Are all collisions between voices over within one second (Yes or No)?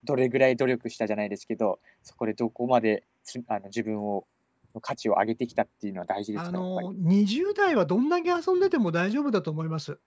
Yes